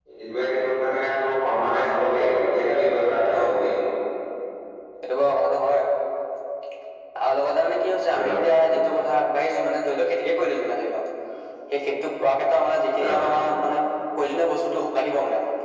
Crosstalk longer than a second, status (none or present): none